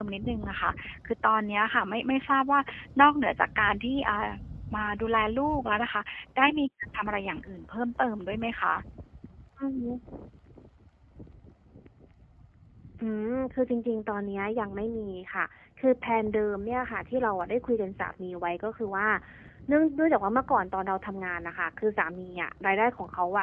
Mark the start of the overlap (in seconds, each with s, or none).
none